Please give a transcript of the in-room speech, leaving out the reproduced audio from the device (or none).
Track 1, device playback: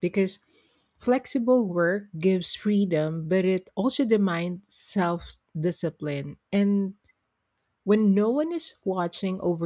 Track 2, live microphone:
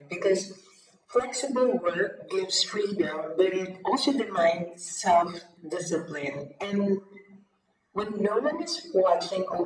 none